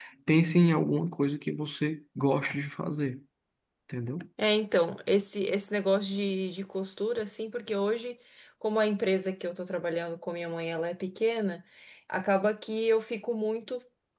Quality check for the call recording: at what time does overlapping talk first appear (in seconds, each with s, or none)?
none